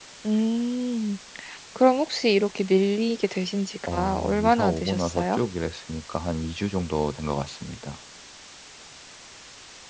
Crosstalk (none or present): present